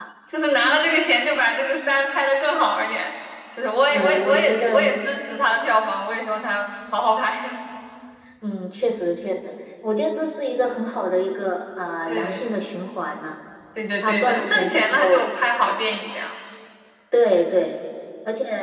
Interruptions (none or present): present